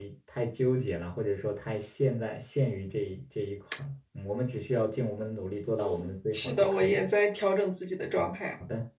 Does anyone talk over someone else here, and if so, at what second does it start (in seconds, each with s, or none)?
5.8 s